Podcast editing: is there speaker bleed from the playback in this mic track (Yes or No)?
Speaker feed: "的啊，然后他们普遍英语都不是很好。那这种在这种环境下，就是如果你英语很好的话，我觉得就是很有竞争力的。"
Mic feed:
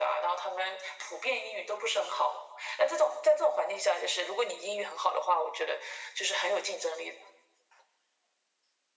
Yes